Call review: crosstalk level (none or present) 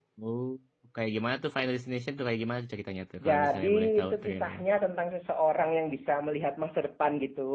present